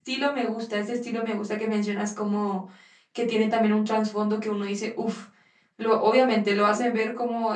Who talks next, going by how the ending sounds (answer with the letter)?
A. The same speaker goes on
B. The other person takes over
A